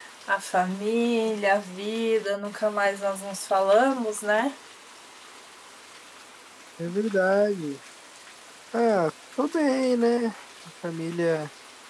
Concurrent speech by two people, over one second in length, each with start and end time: none

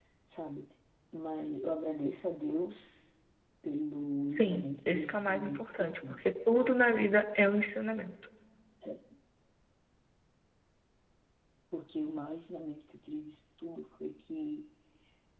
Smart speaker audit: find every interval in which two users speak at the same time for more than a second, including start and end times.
4.4-6.3

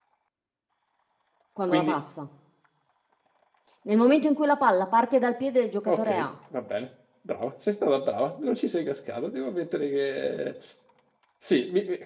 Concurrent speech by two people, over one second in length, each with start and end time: none

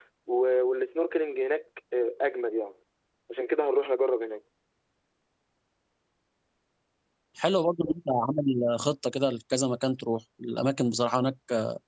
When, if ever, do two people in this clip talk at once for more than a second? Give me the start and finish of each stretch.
none

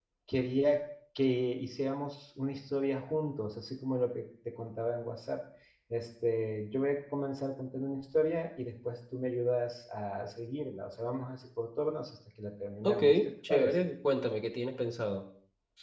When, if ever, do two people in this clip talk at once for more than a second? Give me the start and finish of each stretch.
none

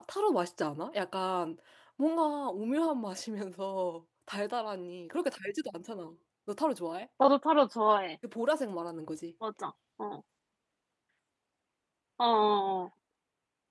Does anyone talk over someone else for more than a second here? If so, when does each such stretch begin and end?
none

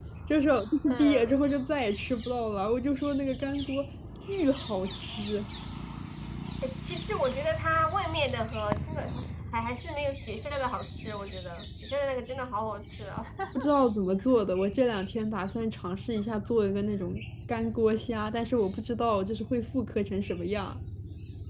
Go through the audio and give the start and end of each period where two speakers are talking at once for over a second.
none

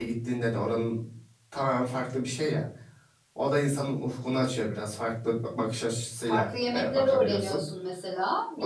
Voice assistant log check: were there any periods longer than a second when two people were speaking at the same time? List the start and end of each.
6.3-7.6

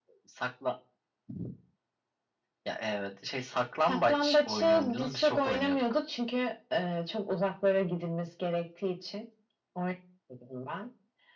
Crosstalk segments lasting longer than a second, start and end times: 3.9-5.8

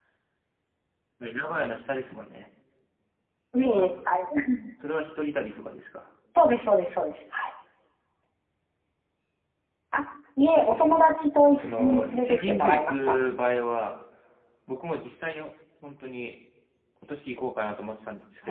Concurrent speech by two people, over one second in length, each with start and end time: 11.6-13.2

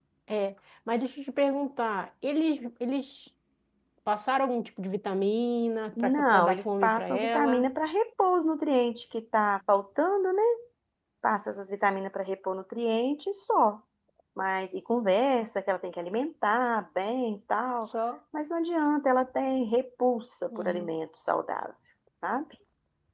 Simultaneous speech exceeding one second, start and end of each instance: 6.0-7.7

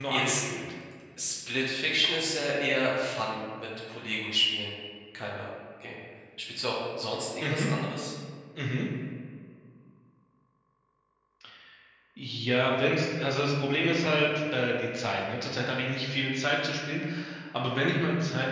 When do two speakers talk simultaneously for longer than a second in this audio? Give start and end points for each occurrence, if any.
none

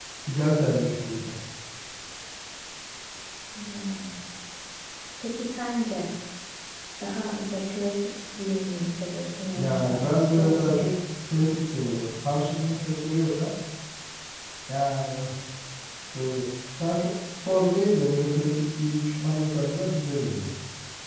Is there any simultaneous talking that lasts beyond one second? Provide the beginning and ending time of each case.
9.6-10.8

